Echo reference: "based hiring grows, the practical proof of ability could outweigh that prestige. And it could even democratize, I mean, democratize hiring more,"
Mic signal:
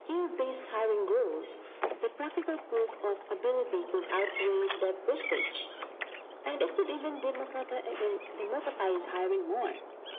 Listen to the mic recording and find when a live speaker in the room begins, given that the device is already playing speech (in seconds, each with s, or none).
none